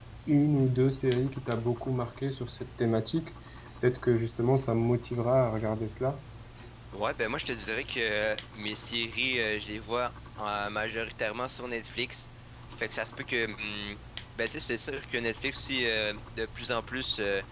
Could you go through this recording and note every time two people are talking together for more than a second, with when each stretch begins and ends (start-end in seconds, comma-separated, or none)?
none